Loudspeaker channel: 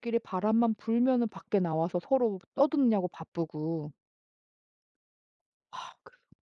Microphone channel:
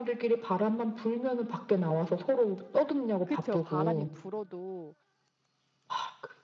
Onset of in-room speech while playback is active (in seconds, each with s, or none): 3.2 s